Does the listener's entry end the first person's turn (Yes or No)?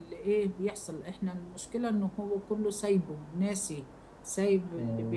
No